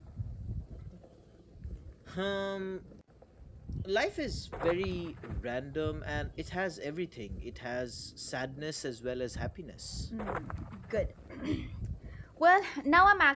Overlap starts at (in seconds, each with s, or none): none